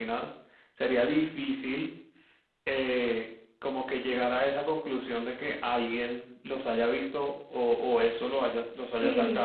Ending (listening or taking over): taking over